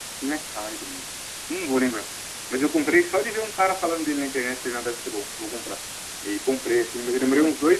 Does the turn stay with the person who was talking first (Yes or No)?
Yes